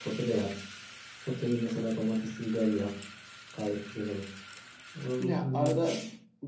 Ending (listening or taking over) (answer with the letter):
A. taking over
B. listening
A